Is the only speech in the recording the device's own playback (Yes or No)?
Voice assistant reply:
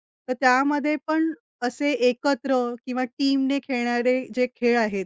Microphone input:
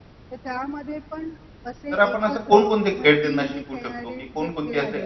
No